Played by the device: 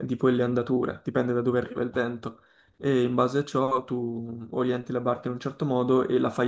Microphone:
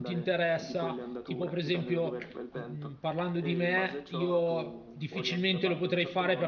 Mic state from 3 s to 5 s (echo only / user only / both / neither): both